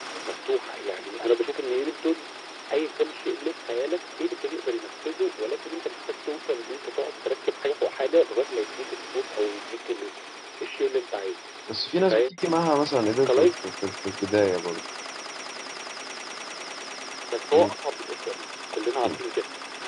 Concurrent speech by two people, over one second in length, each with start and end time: none

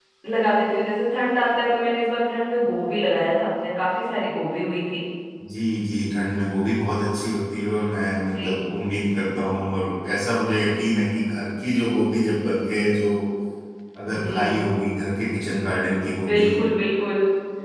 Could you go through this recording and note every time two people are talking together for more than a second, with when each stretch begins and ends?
none

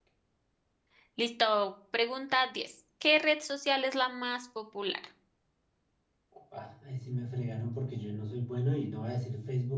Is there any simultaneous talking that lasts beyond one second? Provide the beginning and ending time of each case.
none

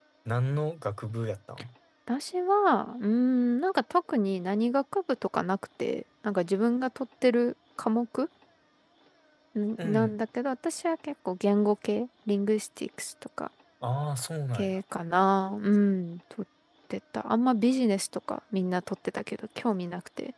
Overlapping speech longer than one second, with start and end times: none

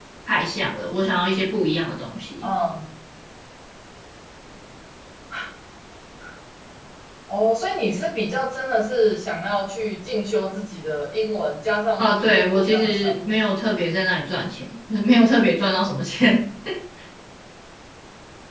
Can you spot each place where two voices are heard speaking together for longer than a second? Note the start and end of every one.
12.0-13.3

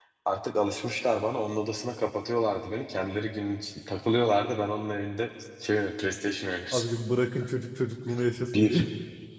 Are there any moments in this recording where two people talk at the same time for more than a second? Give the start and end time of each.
none

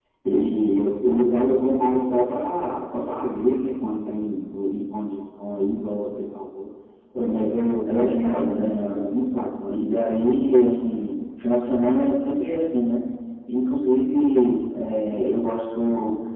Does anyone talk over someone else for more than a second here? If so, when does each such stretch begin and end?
7.8-9.1

